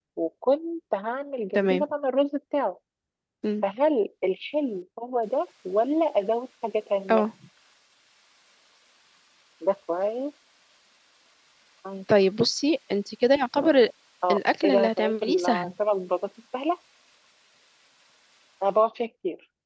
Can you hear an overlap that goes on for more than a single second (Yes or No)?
Yes